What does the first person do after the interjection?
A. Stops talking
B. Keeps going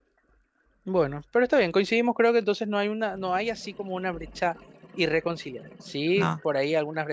B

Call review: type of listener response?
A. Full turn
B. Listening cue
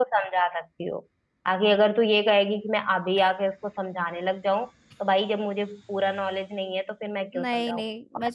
A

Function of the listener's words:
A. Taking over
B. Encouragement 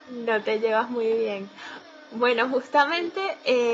B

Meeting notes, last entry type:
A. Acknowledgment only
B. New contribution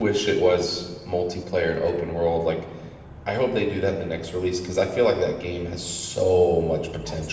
B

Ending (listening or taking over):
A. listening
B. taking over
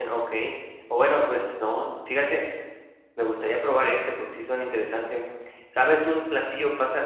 A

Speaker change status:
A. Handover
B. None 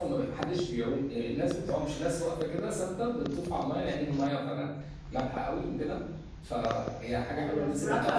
A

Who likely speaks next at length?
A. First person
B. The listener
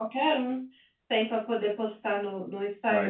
B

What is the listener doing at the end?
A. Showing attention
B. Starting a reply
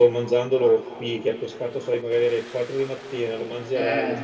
A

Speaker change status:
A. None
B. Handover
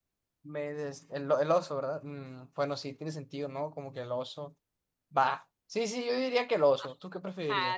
B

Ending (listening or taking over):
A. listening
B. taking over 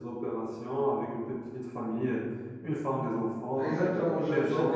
B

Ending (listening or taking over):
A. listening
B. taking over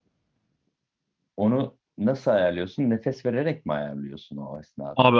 B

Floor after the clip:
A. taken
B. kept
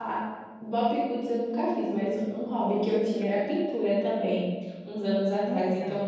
B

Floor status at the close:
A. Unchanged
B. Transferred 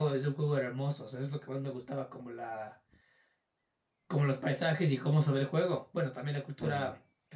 A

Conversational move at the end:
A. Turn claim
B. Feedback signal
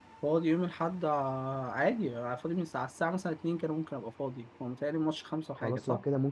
A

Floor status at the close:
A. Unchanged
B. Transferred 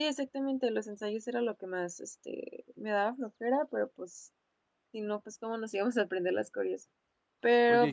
B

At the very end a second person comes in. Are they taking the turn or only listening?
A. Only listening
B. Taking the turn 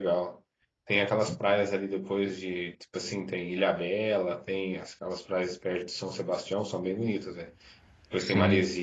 A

